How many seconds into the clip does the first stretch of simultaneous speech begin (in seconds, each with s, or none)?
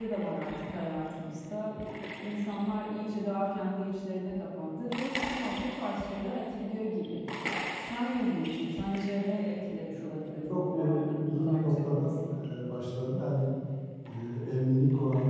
9.9 s